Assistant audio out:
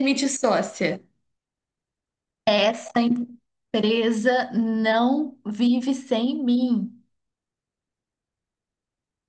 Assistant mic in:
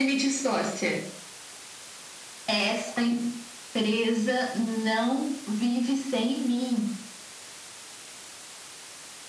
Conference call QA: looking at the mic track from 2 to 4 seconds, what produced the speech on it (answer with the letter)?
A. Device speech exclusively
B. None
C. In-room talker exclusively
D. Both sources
A